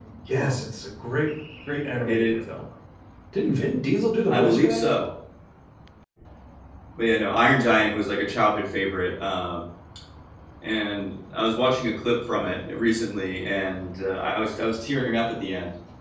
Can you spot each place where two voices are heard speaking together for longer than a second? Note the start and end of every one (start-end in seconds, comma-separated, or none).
none